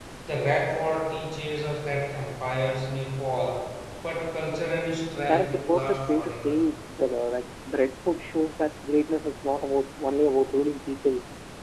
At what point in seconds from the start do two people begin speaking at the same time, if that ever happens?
5.3 s

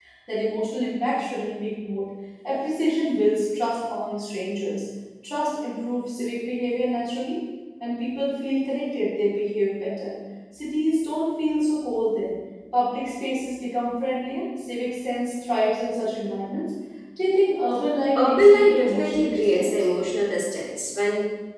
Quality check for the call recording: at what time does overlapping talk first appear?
18.2 s

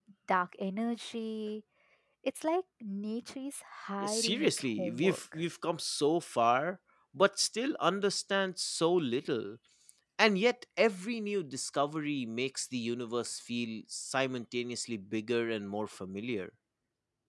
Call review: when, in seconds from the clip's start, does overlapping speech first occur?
4.0 s

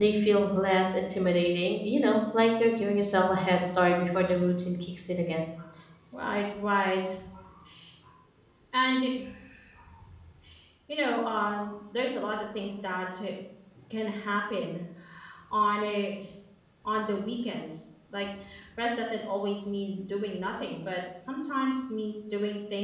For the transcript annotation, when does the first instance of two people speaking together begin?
none

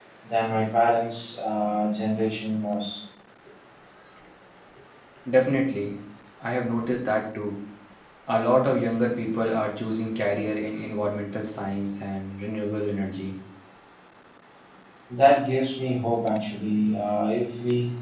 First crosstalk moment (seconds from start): none

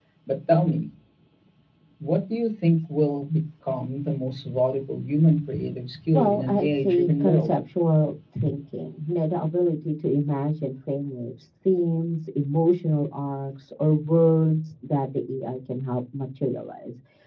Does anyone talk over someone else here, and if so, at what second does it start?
6.1 s

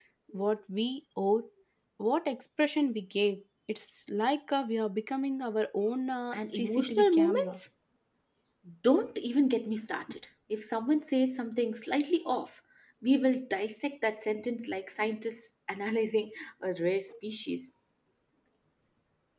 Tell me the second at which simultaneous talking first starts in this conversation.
6.3 s

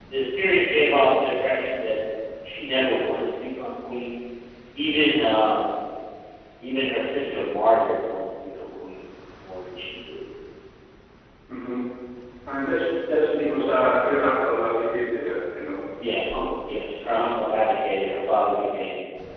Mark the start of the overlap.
none

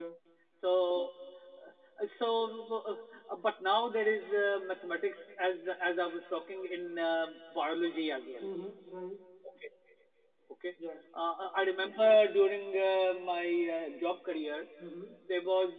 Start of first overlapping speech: none

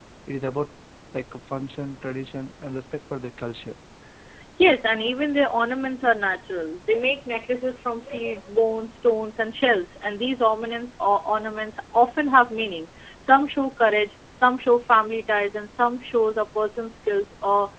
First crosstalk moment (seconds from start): none

